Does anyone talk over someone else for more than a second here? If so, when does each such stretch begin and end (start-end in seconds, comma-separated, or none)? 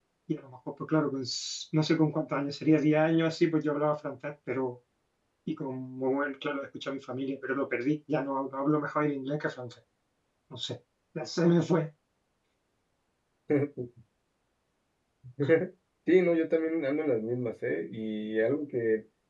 none